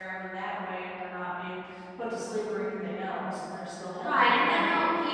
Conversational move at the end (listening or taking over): taking over